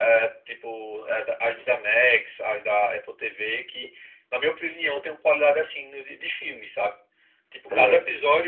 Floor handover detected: No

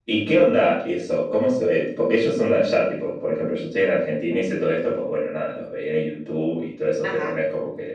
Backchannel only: Yes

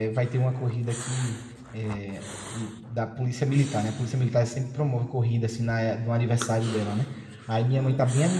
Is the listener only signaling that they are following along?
Yes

